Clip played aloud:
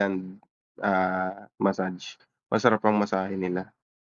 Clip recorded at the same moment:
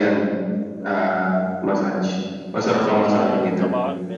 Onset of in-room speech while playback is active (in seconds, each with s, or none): 2.8 s